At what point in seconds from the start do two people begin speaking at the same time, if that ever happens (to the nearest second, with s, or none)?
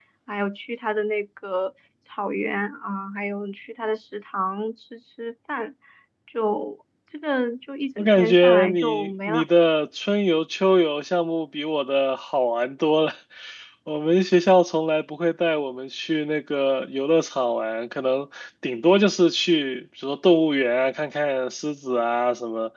8 s